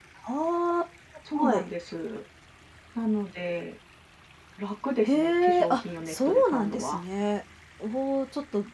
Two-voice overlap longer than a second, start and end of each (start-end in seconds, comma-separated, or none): 5.0-7.0